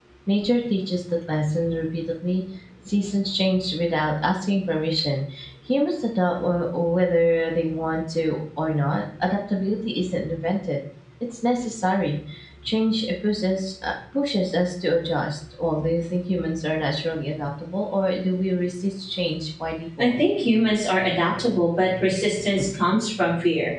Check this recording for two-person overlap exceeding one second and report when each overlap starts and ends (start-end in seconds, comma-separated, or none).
none